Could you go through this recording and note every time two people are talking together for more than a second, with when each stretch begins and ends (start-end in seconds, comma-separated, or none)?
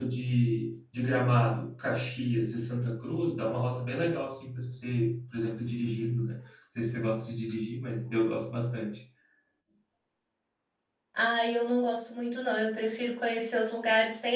none